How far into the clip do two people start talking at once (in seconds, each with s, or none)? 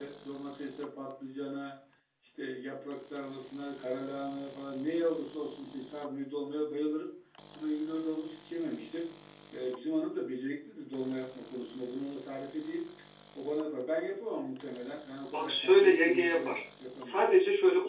15.3 s